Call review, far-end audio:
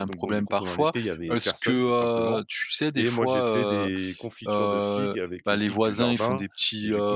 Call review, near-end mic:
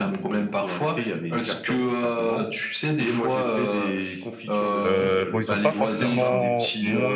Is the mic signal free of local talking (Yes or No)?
No